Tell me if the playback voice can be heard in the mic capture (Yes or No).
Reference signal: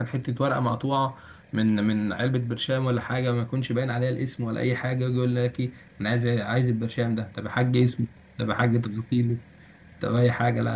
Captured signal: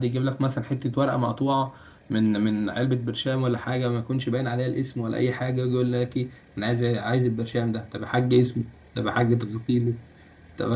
Yes